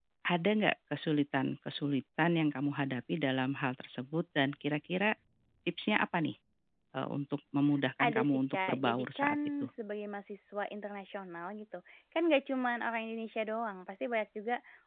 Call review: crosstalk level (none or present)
present